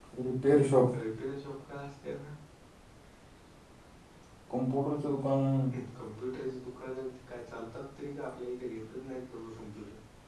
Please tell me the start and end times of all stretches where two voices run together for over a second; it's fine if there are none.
none

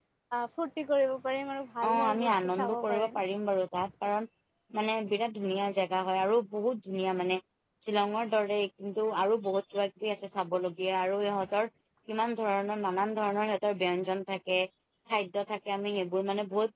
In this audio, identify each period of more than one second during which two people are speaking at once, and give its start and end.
1.9-3.2

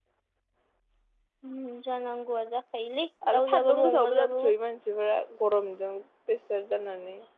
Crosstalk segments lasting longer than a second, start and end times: 3.3-4.5

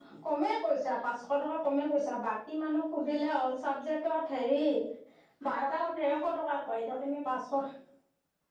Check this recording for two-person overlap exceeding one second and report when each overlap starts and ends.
5.5-7.0

